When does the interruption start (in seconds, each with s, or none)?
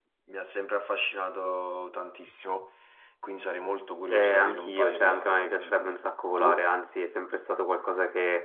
4.1 s